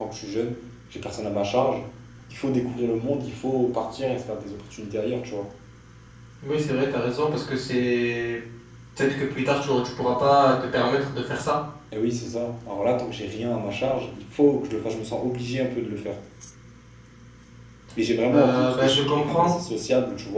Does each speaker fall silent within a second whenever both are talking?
No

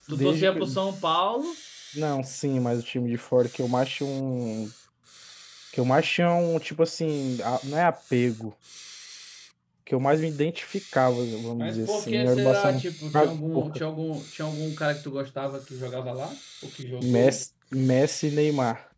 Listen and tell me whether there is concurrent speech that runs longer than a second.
Yes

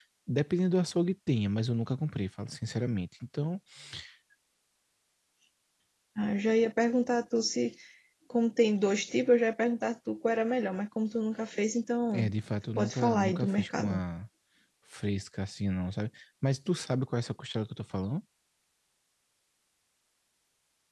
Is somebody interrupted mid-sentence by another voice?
Yes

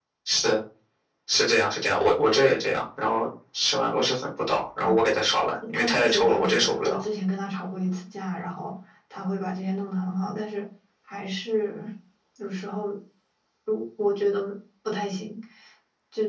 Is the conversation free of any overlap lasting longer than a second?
No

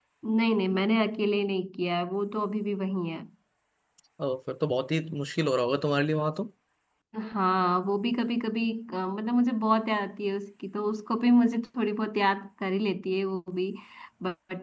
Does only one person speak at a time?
Yes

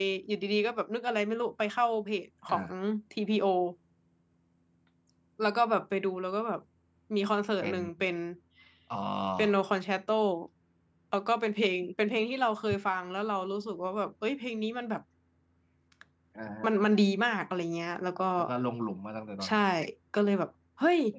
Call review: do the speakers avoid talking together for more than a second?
Yes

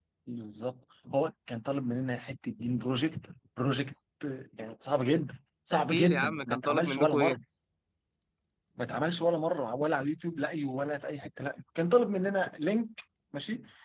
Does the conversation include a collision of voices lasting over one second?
Yes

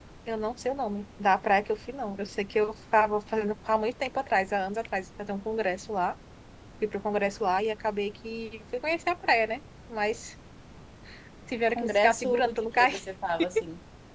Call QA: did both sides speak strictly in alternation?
No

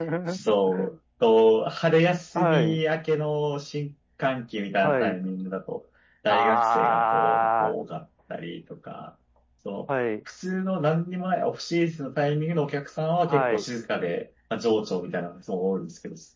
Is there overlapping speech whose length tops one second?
Yes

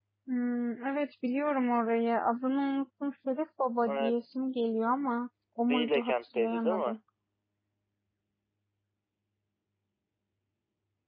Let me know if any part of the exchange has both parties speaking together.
Yes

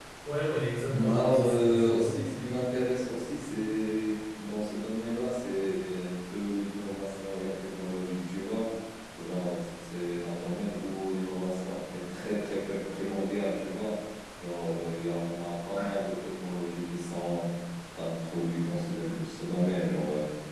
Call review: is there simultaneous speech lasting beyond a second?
Yes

